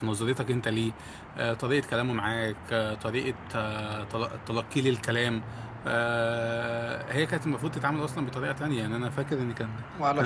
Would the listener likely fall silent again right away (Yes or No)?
Yes